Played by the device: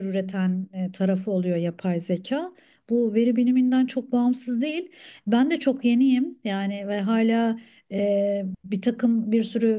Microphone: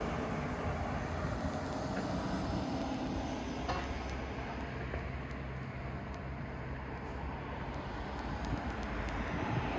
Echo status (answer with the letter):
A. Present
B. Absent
B